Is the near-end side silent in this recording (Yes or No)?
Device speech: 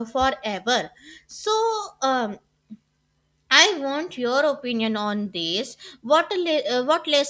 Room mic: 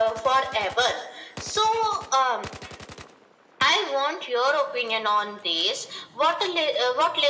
Yes